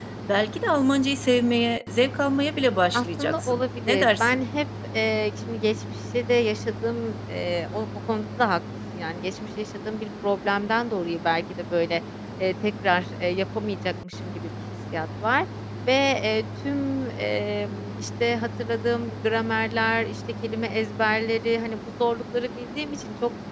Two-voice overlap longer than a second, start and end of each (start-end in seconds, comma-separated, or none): 2.9-4.4